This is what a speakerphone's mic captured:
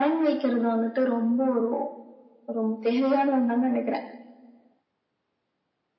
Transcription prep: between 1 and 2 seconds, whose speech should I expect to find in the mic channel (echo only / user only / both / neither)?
echo only